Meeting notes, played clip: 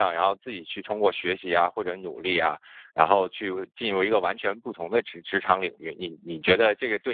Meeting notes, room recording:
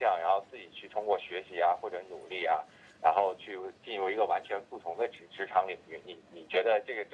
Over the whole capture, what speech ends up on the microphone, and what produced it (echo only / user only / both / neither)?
echo only